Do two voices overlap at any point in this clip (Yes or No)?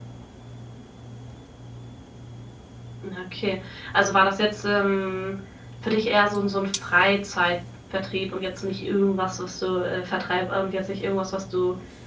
No